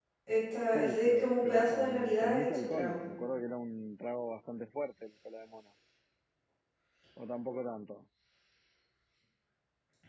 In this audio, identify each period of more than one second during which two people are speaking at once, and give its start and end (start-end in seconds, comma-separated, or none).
0.7-3.0